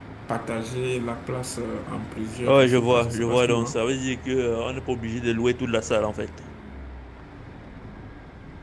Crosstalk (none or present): present